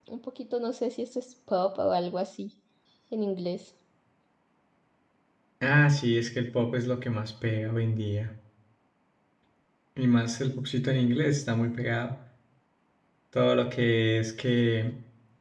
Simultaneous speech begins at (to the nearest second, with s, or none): none